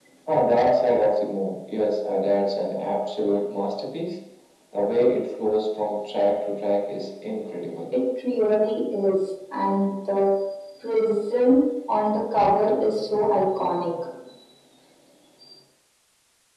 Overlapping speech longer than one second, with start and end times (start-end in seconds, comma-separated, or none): none